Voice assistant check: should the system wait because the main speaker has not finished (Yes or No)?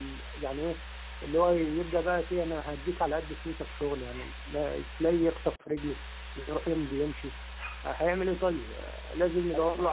No